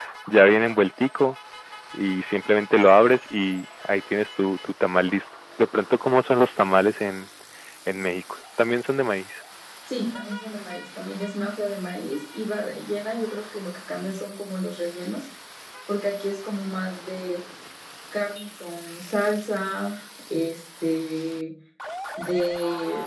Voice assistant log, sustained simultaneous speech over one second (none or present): none